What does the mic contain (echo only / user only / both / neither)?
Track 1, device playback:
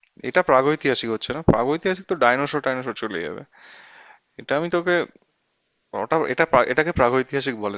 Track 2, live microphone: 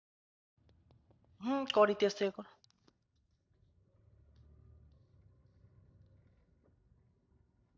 user only